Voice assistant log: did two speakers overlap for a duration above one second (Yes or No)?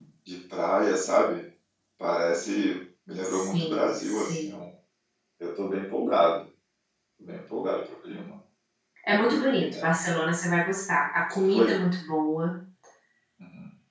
Yes